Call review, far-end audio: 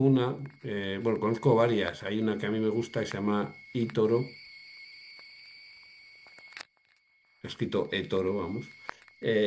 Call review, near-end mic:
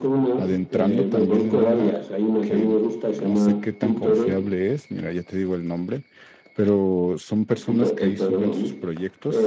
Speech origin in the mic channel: both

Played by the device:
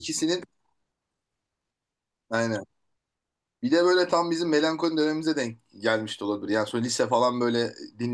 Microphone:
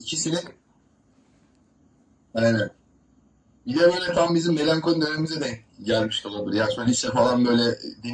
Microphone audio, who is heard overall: echo only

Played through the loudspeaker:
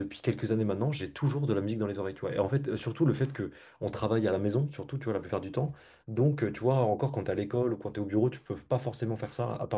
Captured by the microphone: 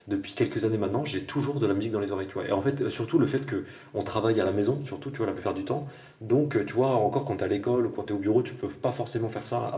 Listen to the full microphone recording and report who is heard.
echo only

